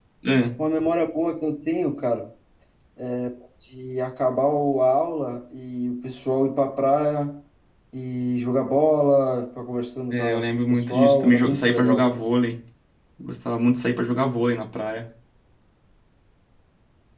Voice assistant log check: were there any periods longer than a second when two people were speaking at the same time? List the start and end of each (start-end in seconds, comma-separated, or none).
10.1-12.2